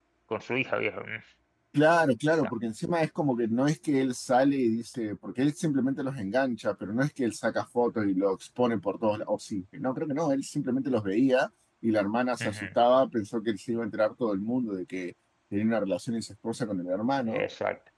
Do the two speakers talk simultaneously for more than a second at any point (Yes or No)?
No